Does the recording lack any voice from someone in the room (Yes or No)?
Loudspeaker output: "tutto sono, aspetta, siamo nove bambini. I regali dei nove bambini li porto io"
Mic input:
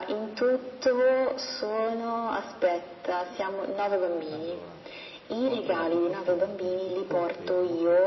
No